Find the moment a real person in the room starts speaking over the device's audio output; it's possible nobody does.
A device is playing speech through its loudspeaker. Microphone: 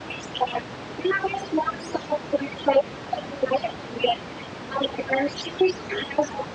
none

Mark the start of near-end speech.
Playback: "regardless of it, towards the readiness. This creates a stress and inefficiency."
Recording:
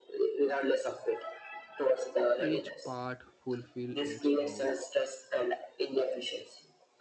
2.3 s

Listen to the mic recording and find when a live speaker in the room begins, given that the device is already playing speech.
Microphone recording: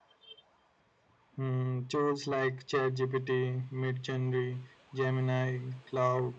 none

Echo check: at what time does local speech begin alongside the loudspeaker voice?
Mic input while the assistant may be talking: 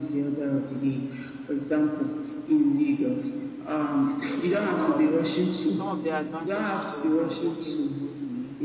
4.2 s

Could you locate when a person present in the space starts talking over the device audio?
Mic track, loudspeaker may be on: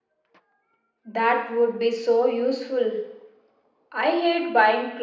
none

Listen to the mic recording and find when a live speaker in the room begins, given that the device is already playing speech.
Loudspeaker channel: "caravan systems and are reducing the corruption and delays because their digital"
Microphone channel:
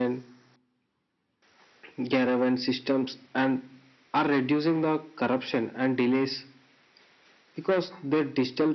none

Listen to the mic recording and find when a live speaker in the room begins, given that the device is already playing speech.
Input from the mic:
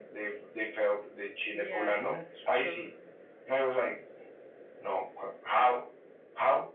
1.5 s

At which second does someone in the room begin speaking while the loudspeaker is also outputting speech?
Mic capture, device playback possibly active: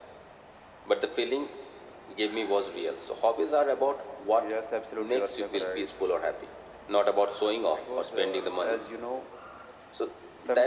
none

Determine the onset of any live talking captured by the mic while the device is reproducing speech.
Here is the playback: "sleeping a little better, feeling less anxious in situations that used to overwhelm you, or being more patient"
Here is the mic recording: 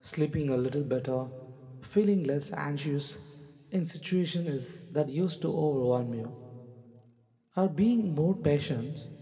none

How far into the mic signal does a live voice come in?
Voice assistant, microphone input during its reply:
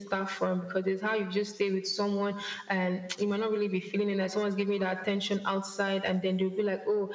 none

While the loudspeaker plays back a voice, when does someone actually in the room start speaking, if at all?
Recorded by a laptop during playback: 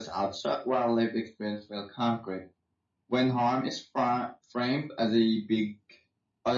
none

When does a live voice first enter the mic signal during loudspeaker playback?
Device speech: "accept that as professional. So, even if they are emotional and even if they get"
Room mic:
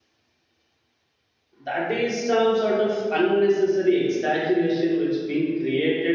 1.6 s

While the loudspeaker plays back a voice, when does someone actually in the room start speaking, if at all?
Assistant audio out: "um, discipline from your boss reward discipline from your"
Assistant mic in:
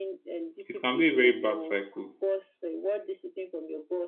0.6 s

